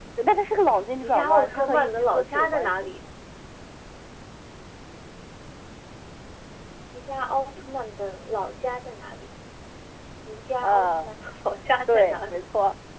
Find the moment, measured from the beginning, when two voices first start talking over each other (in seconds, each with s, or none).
1.0 s